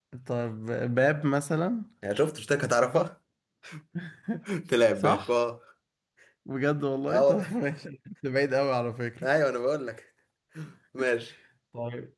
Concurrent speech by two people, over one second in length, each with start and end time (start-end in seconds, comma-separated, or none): none